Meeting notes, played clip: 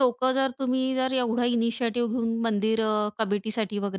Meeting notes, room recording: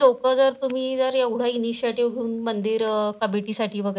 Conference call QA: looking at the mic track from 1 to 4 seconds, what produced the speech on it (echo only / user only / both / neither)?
echo only